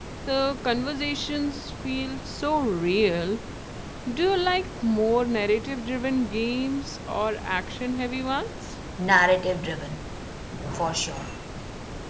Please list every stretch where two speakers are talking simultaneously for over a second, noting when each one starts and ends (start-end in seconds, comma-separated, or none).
none